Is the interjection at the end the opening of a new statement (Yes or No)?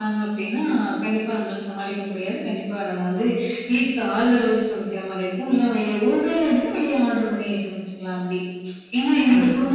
No